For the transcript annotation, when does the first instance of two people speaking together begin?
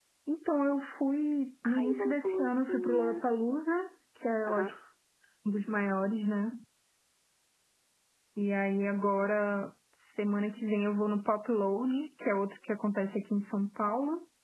1.6 s

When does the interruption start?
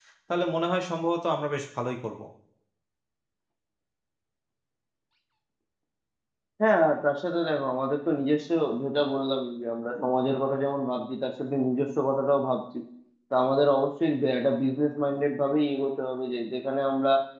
none

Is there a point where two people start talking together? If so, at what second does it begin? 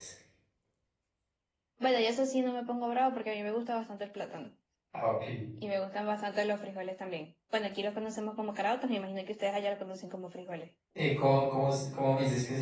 none

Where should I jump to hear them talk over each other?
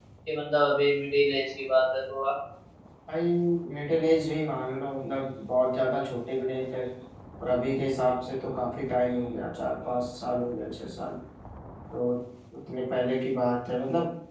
none

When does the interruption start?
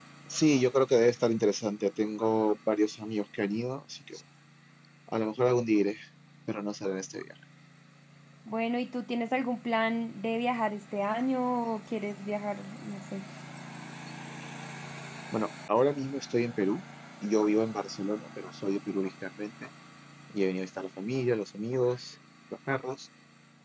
none

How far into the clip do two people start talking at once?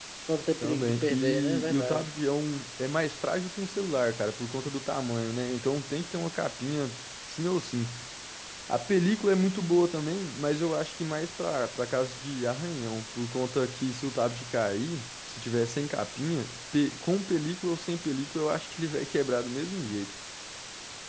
0.6 s

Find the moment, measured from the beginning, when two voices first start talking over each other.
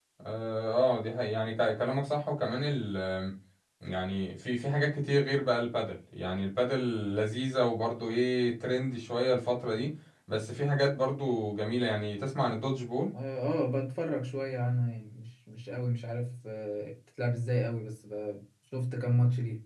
none

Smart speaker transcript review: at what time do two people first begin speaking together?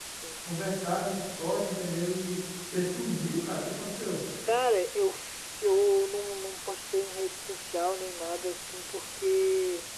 none

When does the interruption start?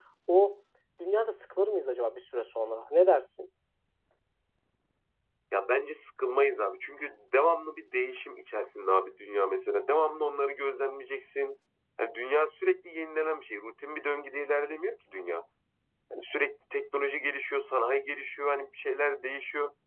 none

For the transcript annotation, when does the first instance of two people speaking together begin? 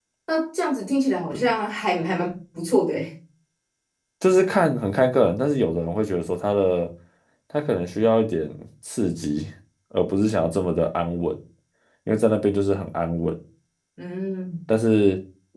none

